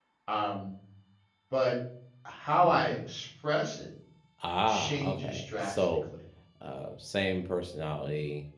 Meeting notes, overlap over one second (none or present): present